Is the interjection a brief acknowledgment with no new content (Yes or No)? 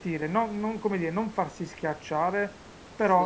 Yes